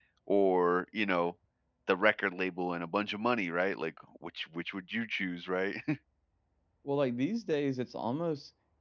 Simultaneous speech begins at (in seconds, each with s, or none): none